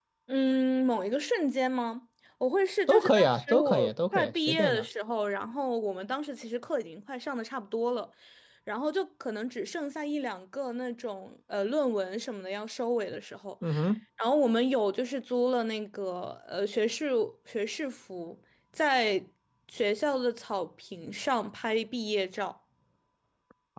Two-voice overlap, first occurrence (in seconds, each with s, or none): 2.9 s